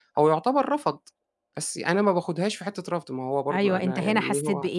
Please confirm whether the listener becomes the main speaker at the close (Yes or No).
Yes